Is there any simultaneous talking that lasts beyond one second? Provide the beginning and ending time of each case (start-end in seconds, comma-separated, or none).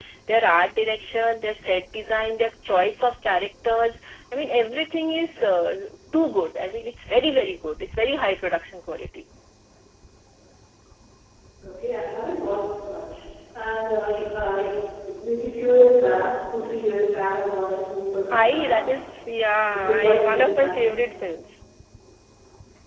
19.7-21.0